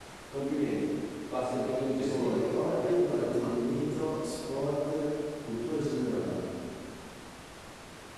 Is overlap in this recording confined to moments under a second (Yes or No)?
No